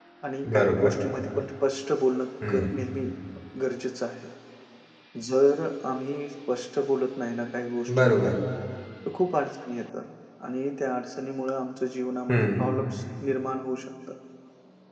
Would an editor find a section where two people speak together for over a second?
No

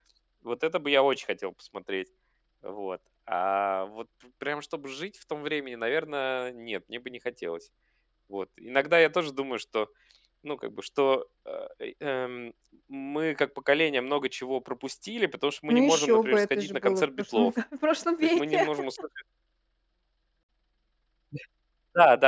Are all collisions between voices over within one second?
No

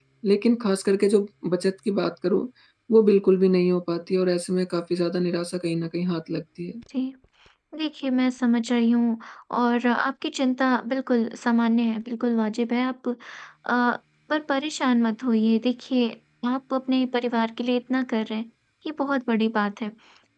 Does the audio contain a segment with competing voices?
No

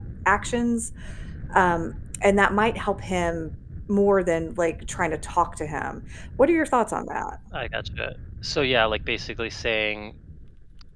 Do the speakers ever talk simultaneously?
No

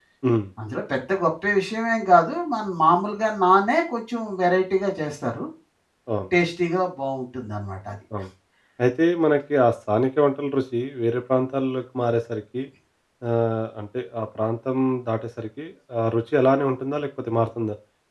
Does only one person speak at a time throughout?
Yes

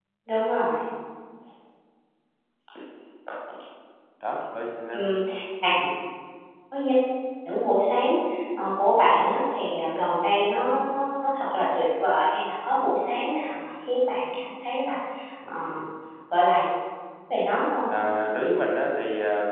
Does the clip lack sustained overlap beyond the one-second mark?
Yes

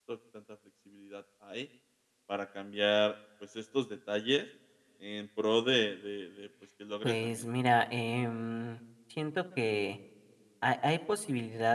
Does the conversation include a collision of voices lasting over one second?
No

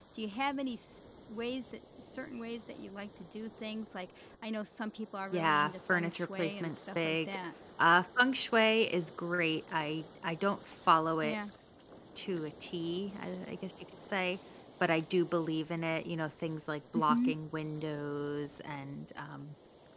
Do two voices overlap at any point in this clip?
Yes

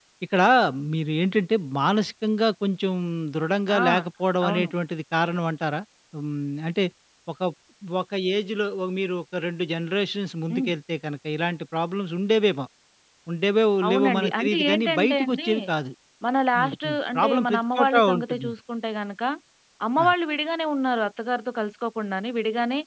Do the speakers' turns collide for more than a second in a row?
Yes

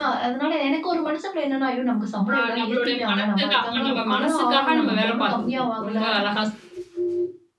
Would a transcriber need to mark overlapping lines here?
Yes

